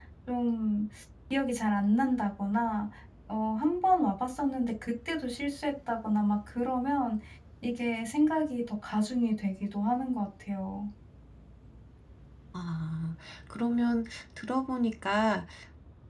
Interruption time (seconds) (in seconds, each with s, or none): none